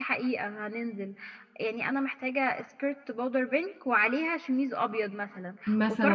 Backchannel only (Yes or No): Yes